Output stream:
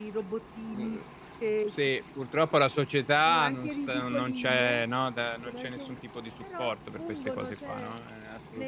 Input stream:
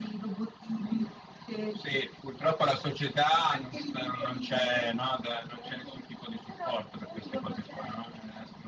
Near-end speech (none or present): none